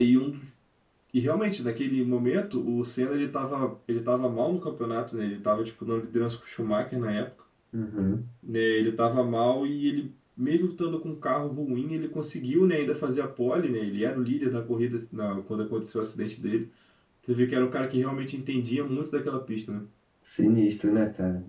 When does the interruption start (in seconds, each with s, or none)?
none